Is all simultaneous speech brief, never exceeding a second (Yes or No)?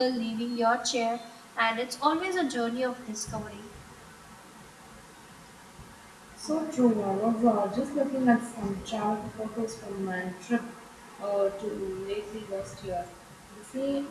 Yes